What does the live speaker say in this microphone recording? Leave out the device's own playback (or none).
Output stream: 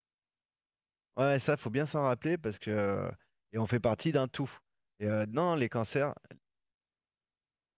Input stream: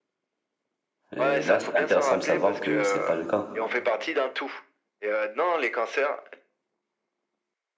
Et là, c'est intéressant de savoir que c'est pas le cas.